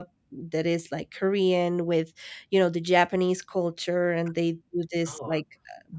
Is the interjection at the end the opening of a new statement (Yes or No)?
No